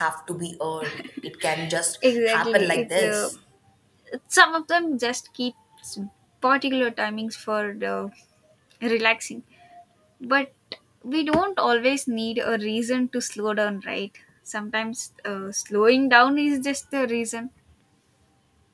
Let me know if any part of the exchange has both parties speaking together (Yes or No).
Yes